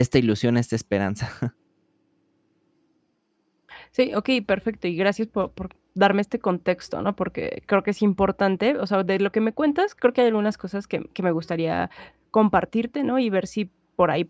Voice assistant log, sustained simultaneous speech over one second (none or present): none